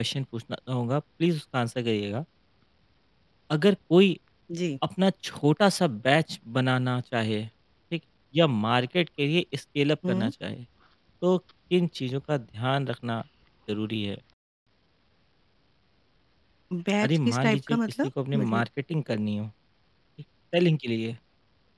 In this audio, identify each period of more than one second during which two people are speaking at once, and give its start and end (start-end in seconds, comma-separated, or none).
17.0-18.6